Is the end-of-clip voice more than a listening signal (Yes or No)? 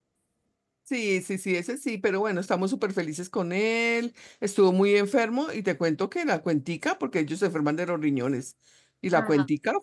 No